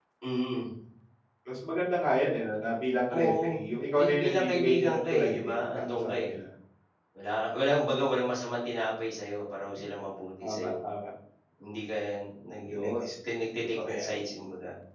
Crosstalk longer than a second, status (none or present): present